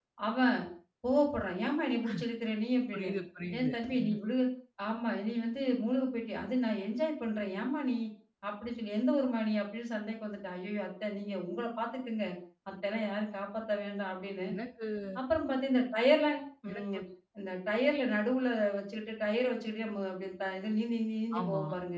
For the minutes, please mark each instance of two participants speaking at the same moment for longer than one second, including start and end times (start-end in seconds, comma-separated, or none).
none